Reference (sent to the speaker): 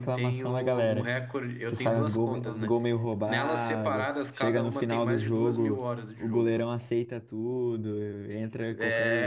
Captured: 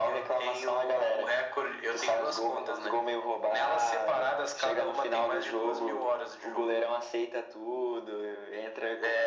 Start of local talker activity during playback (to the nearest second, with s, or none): none